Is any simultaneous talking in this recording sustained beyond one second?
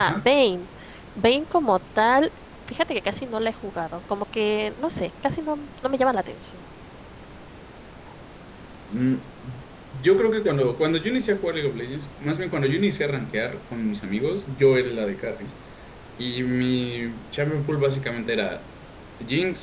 No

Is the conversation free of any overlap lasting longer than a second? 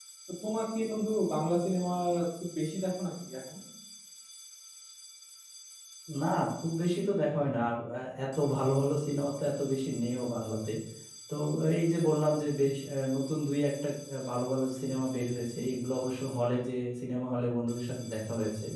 Yes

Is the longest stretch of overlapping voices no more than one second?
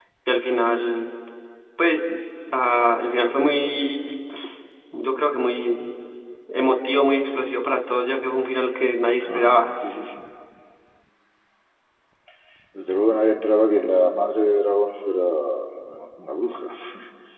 Yes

